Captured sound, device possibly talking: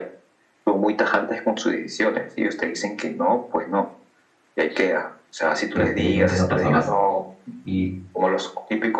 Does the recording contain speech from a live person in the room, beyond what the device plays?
Yes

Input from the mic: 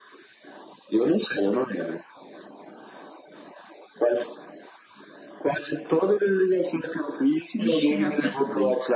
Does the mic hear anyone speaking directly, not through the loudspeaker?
Yes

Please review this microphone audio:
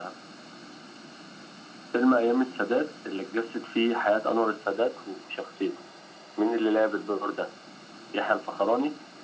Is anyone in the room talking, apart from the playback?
No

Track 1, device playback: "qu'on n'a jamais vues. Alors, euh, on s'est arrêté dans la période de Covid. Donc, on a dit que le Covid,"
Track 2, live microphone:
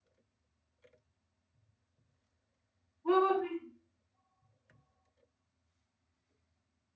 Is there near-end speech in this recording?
Yes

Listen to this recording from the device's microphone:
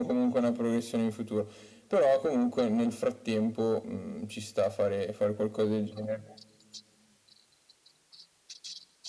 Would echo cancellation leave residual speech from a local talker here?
No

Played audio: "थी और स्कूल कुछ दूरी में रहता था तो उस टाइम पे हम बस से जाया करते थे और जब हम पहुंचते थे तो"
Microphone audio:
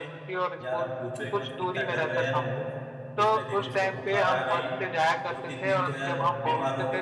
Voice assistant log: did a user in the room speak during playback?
Yes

